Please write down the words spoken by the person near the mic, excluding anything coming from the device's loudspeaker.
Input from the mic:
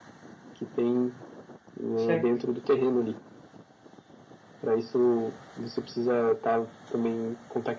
certo.

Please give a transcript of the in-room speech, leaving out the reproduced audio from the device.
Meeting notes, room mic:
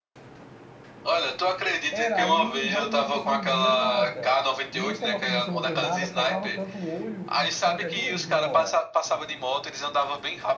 Era, aí realmente você não via nada. E esse negócio de você não ver nada forçava tanto o olho que ficava até doendo em hora.

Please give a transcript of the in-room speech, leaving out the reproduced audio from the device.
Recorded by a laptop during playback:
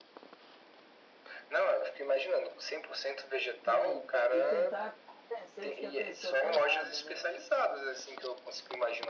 sim. E tentar convencer de que a pessoa tá errada, né?

